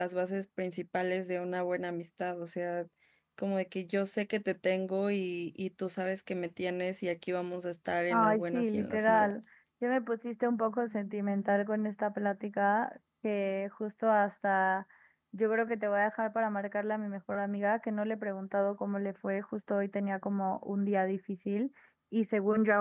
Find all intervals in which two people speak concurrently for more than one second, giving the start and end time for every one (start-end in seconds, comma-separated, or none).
8.1-9.3